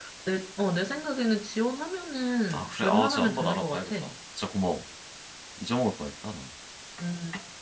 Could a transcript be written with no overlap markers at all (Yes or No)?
No